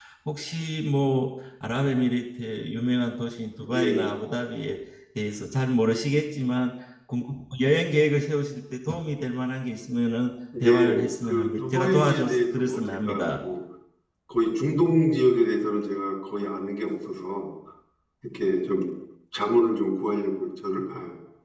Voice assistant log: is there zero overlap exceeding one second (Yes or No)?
No